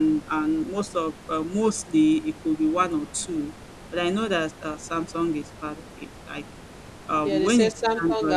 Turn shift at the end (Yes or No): Yes